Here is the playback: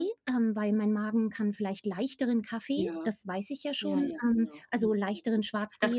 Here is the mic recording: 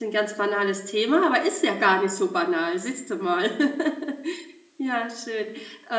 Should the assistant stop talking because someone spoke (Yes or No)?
Yes